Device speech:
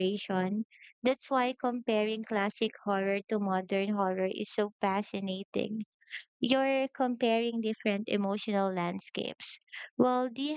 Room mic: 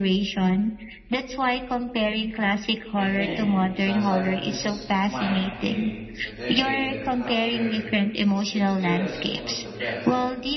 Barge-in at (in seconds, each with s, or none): 3.0 s